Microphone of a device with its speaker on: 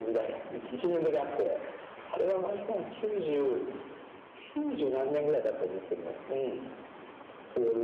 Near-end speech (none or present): none